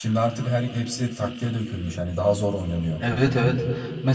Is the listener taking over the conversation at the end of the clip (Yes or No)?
Yes